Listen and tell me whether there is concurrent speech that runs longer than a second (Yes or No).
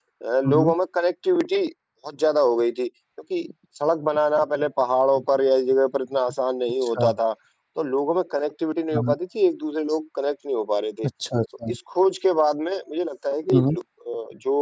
No